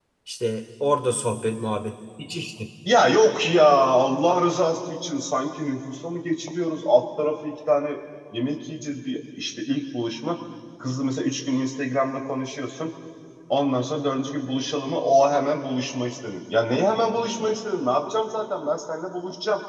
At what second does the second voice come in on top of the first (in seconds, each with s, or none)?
none